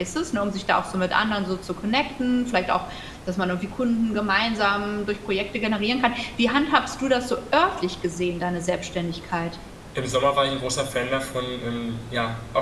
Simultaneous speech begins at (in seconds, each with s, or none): none